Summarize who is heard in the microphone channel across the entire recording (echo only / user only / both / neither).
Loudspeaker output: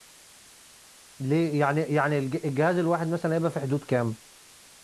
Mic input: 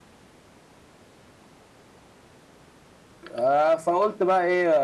user only